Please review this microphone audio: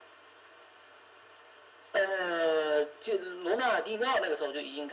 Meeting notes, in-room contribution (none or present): none